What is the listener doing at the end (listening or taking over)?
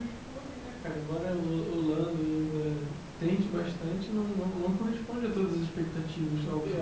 taking over